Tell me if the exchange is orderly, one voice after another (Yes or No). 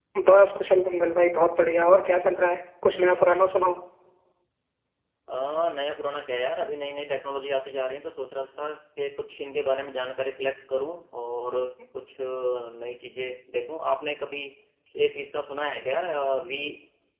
Yes